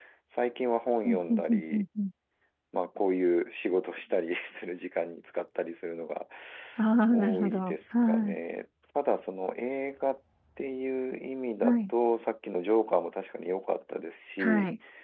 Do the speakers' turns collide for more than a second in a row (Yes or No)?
Yes